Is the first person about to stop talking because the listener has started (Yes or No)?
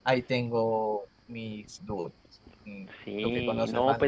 Yes